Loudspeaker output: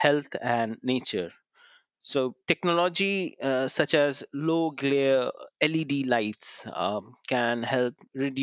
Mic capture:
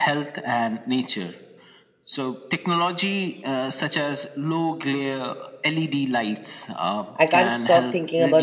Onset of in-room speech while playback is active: 7 s

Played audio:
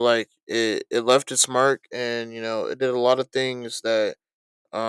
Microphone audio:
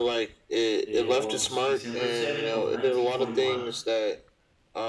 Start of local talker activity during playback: 1 s

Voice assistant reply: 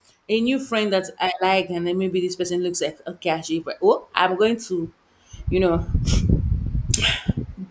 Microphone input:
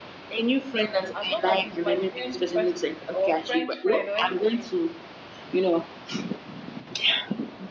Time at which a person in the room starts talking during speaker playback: 1 s

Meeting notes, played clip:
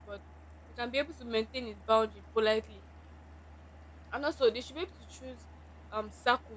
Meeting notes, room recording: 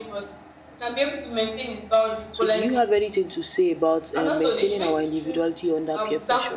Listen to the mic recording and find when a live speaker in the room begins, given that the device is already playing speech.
2 s

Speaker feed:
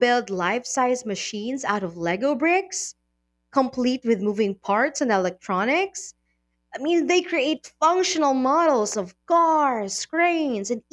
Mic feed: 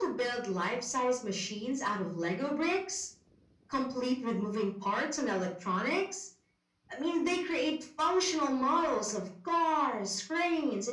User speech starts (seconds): none

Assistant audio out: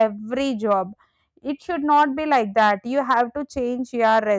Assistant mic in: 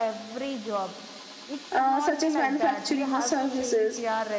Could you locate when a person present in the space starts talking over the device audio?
2 s

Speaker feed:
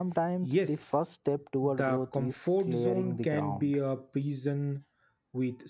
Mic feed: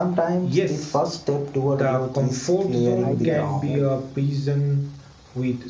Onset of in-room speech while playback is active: 3 s

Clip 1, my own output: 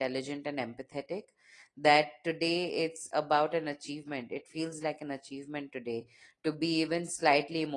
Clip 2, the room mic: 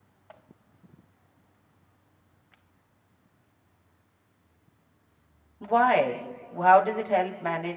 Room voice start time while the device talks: 6 s

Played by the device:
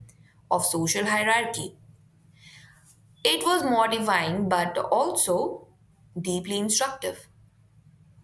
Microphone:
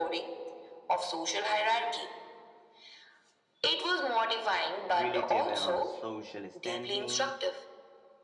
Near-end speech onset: 5 s

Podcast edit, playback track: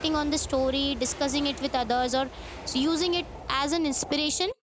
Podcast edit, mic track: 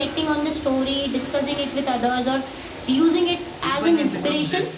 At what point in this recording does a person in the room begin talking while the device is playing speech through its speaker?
4 s

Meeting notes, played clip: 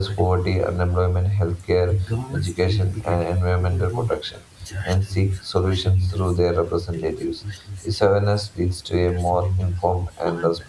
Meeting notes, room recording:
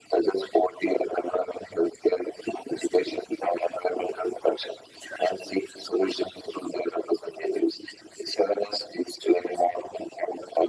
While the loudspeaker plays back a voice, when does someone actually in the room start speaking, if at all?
none

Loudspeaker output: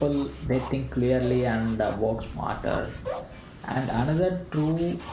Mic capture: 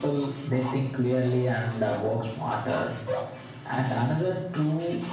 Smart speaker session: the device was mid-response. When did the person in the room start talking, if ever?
none

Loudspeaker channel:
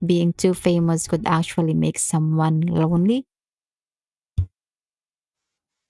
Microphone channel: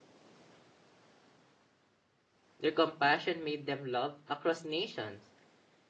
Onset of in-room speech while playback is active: 3 s

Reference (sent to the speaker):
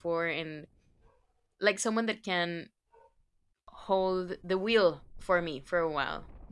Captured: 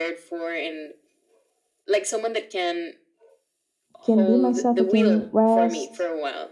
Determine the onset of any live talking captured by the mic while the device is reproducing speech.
4 s

